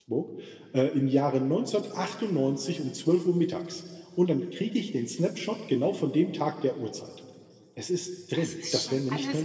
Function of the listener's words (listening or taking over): taking over